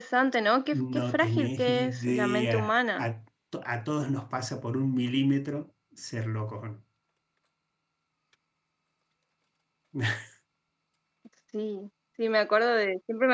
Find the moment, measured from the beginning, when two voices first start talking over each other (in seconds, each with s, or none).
0.7 s